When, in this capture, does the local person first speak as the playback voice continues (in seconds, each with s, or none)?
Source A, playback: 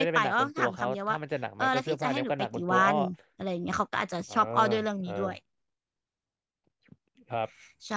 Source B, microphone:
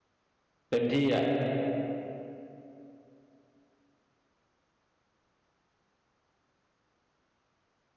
0.7 s